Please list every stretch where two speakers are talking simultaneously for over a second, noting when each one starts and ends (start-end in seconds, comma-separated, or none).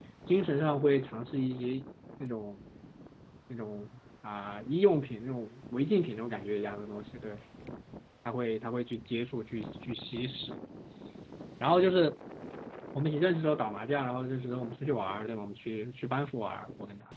none